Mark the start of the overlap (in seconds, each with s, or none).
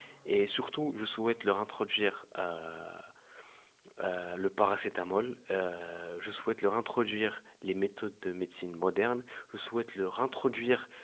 none